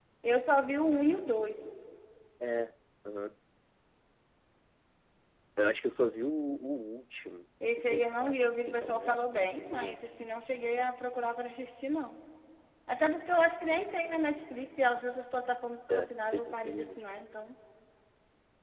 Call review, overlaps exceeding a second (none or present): present